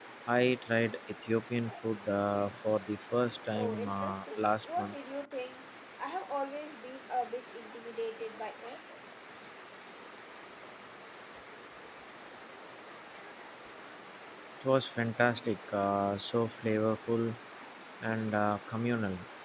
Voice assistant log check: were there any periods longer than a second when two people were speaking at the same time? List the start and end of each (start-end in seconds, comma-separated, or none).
3.5-4.9